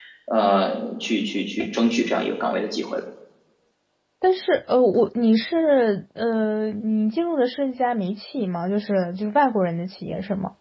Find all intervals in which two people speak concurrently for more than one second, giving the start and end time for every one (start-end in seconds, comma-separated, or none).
none